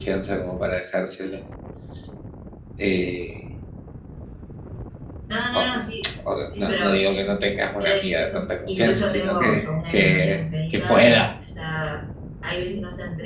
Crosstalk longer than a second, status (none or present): present